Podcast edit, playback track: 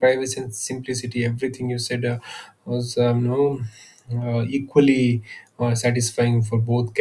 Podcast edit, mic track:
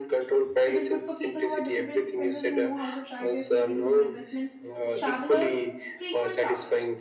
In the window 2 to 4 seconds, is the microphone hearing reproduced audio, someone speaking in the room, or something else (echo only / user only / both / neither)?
both